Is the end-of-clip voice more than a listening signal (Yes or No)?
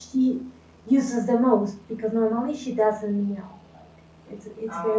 No